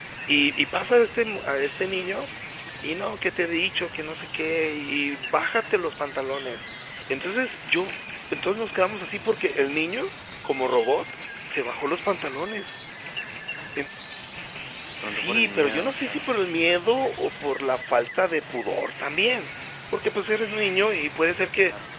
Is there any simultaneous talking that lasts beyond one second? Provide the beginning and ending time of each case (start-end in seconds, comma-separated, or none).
15.1-16.3